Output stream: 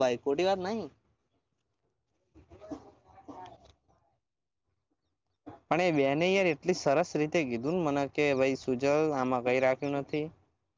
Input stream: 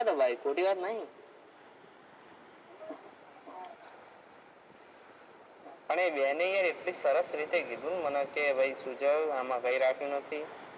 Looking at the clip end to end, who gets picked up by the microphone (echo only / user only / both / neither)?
echo only